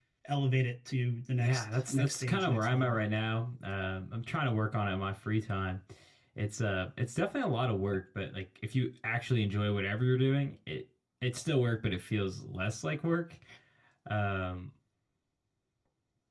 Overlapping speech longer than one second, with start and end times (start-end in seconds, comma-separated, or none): 1.4-3.0